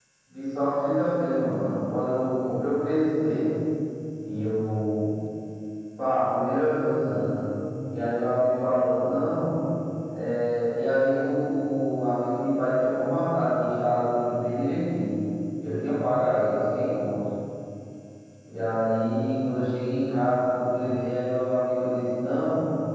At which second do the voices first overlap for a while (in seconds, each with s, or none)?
none